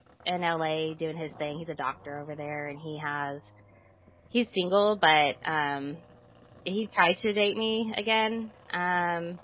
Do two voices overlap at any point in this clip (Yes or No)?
No